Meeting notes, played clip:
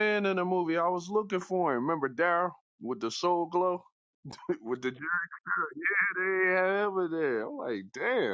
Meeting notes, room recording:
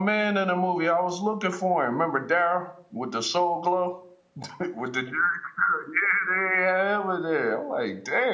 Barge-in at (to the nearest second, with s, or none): none